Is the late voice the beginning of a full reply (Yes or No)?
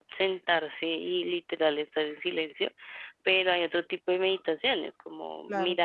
No